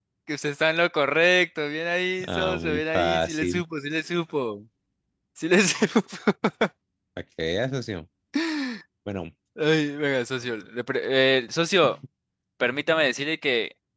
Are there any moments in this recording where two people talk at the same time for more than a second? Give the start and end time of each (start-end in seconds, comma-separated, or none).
2.3-3.6